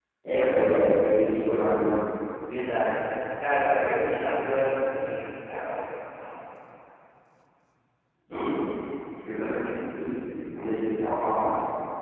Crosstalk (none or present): none